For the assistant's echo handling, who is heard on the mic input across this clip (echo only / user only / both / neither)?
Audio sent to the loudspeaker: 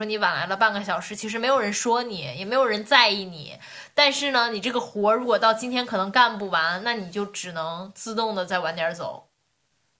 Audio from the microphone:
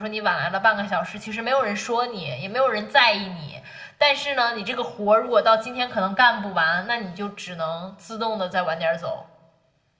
echo only